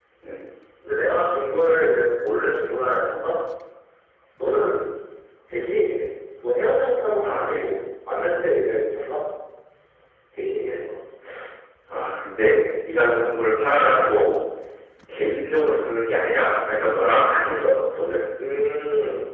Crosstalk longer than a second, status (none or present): none